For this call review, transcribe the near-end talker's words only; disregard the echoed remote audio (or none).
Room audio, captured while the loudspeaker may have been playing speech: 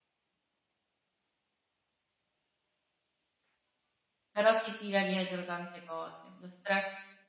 Però si tira dietro tante cose. Lo stress